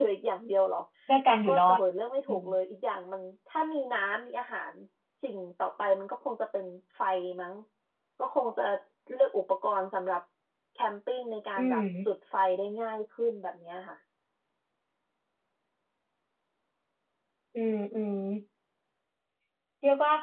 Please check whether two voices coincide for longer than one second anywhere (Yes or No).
No